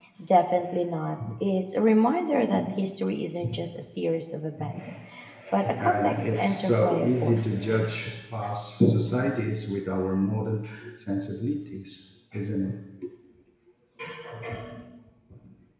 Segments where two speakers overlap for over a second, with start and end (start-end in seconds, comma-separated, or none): 5.8-7.8